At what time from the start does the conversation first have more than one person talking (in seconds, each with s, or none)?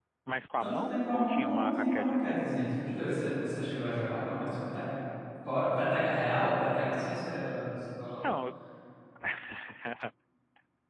0.6 s